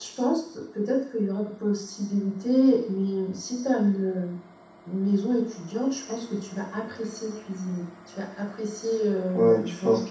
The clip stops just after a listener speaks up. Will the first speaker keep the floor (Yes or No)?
No